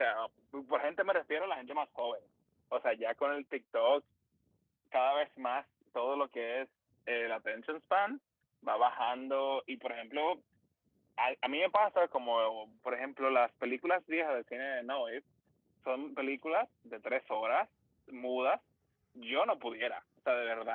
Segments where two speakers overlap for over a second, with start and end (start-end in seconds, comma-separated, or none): none